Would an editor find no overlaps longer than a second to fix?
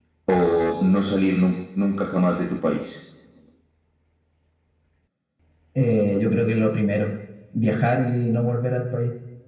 Yes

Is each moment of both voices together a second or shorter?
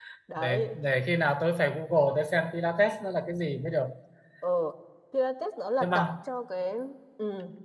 Yes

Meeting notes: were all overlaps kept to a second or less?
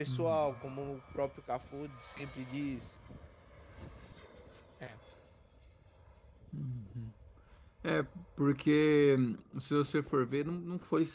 Yes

